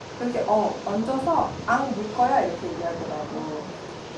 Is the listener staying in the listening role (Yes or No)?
No